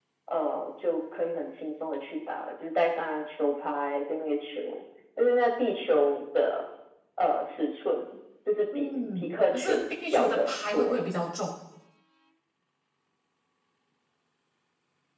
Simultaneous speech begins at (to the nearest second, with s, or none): 9 s